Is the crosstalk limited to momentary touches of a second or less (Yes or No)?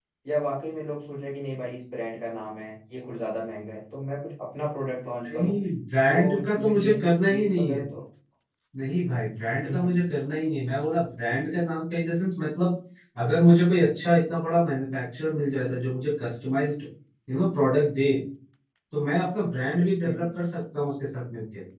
No